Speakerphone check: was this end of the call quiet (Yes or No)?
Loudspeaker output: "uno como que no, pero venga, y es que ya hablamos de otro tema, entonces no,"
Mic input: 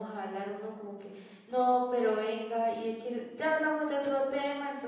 Yes